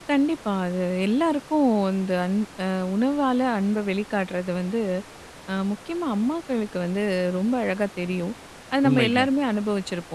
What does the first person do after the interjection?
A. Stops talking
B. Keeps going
B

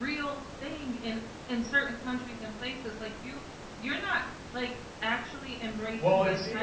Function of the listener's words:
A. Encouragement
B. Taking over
B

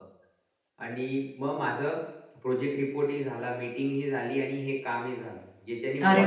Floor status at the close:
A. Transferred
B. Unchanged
A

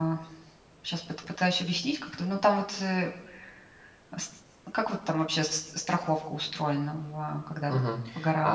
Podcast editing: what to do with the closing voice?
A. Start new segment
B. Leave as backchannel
A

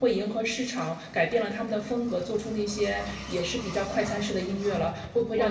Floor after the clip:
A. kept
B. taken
B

